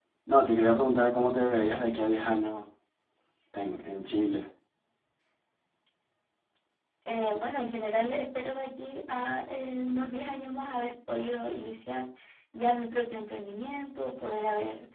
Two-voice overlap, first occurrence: none

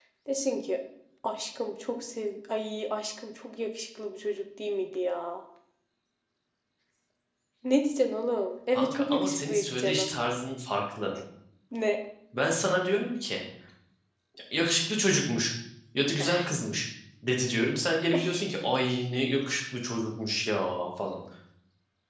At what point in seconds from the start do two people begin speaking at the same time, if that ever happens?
9 s

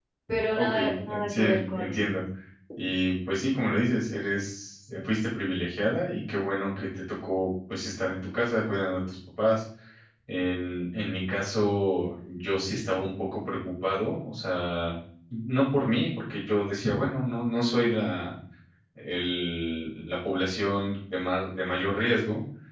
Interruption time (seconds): 1 s

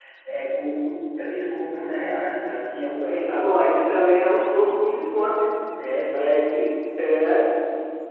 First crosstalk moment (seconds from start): 3 s

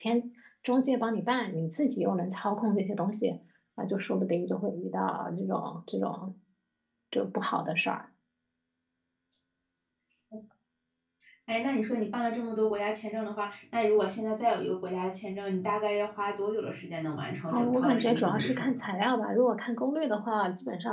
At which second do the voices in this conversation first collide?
17 s

